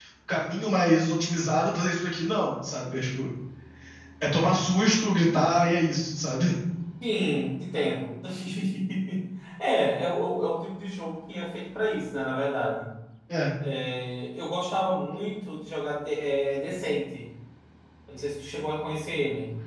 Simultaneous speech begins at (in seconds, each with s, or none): none